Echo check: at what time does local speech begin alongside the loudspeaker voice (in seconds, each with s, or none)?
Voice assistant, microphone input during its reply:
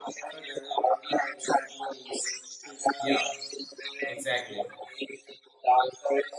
3.0 s